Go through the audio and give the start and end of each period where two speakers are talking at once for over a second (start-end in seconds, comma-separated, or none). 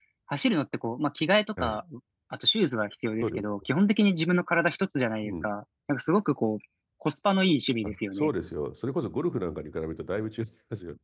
none